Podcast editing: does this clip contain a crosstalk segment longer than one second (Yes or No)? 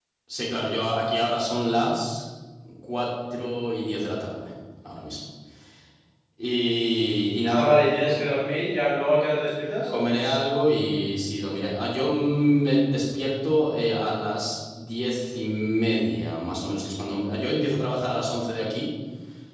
No